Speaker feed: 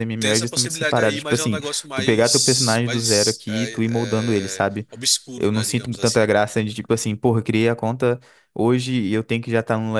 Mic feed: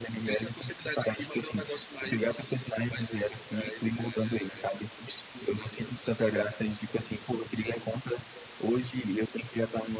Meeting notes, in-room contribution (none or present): none